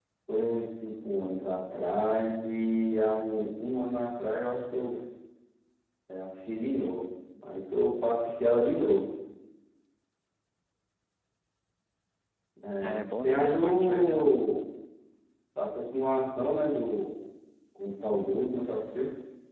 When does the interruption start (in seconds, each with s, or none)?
12.8 s